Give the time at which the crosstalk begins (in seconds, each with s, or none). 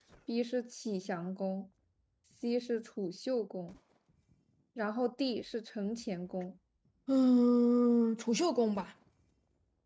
none